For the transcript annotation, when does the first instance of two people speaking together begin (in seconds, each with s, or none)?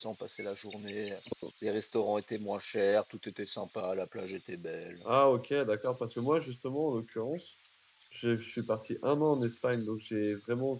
none